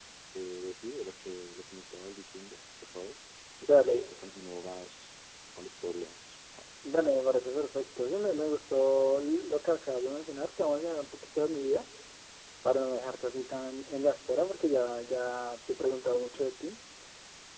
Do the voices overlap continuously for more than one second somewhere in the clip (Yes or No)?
No